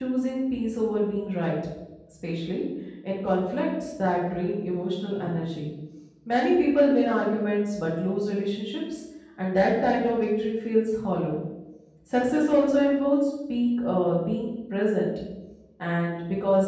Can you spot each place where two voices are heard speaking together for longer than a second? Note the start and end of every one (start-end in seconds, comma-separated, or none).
none